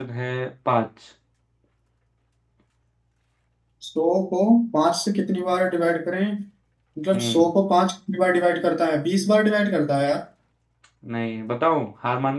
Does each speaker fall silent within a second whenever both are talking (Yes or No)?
Yes